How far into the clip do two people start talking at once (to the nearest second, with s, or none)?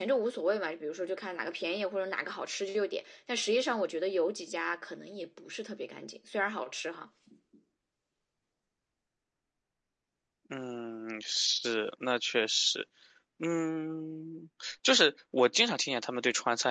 none